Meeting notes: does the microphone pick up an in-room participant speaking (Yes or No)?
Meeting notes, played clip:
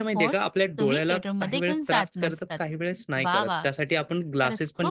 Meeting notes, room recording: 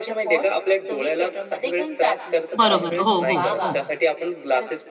Yes